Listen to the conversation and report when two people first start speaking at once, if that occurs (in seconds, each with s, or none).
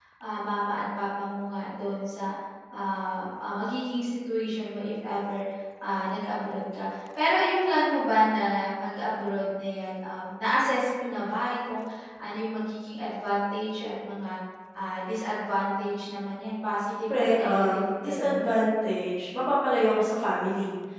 17.1 s